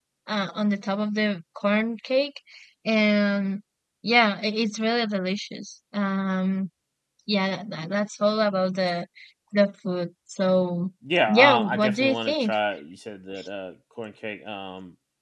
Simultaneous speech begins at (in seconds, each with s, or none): 11.0 s